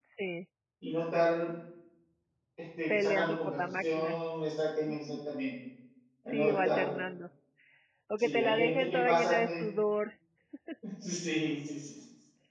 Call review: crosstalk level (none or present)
present